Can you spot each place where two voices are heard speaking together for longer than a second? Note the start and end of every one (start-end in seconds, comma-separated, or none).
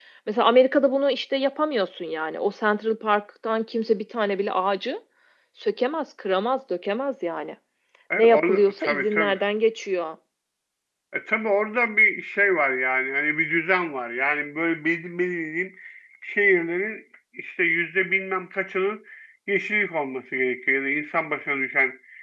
8.2-9.4